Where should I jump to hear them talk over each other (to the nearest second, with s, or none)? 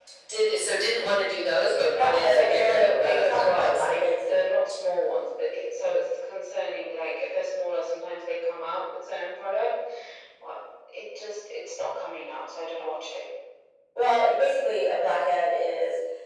2 s